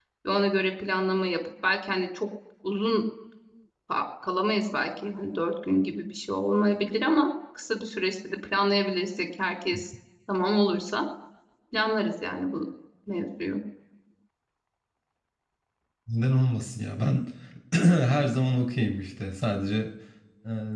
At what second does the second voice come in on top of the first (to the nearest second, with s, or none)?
none